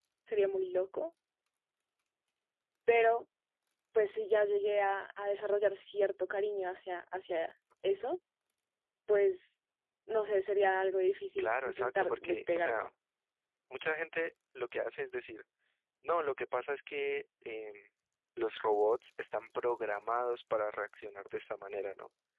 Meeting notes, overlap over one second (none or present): present